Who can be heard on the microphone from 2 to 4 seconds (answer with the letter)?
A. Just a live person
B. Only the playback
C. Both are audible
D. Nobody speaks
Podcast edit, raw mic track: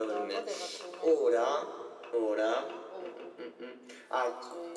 B